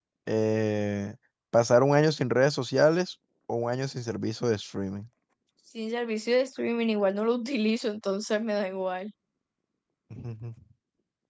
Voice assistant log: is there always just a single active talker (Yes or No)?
Yes